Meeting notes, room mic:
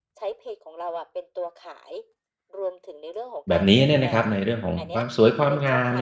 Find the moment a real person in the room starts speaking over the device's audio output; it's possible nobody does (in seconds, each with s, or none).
3.5 s